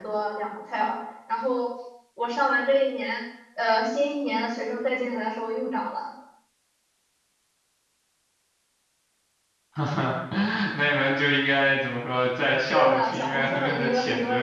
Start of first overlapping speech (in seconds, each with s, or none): 12.7 s